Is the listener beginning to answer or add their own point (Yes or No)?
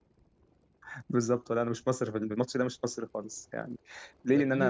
Yes